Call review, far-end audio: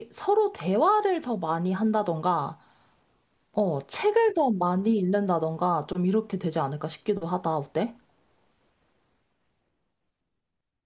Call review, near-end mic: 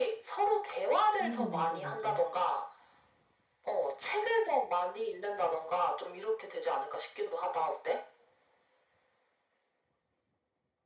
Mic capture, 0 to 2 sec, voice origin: both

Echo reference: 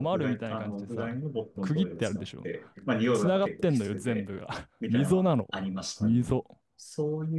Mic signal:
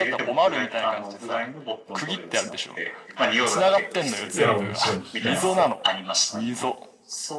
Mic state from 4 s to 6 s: both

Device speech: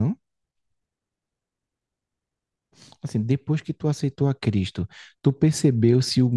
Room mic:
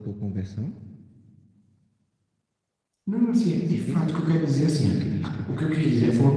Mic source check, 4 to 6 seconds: both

